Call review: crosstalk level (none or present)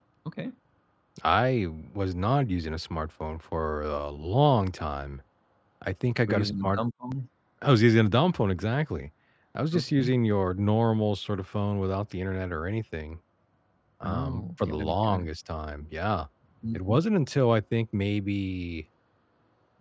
present